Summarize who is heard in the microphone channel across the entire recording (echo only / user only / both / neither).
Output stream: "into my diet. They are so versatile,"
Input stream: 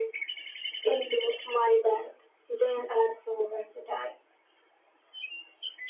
echo only